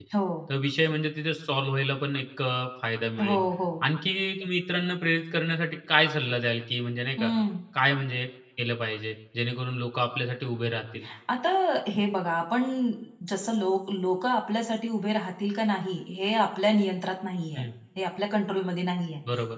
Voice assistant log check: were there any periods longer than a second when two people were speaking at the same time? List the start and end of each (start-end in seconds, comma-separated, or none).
none